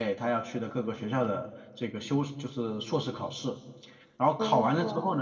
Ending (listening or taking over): listening